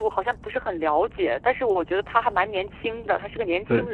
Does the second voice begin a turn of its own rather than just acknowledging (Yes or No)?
Yes